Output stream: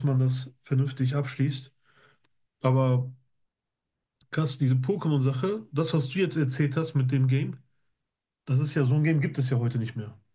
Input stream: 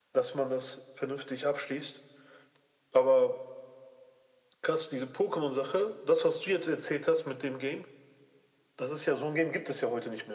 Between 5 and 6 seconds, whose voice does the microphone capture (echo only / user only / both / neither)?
echo only